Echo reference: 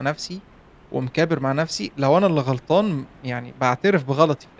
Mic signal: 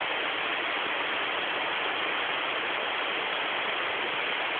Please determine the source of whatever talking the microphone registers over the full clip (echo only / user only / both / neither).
neither